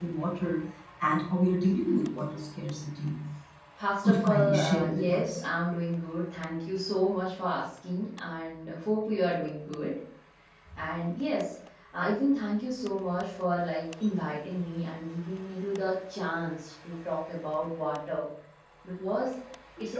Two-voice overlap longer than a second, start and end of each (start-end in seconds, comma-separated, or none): 4.0-5.4